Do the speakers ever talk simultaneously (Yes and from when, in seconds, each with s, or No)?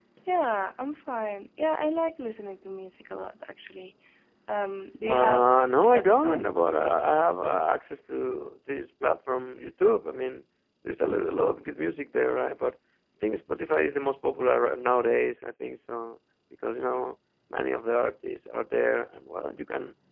Yes, from 5.0 s